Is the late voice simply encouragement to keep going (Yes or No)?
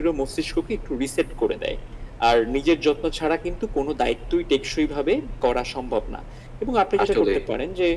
Yes